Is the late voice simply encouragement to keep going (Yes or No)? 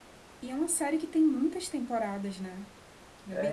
No